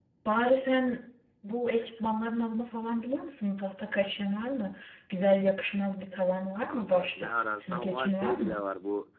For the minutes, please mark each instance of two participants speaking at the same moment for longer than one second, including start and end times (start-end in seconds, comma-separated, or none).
6.7-8.6